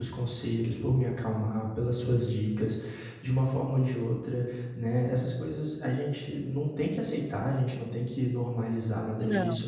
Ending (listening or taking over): listening